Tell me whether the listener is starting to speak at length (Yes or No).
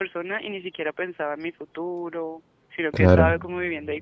No